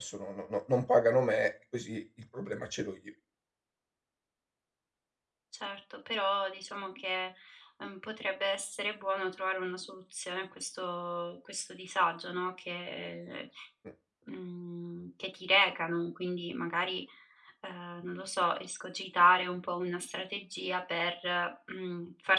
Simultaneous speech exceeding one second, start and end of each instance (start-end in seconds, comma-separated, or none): none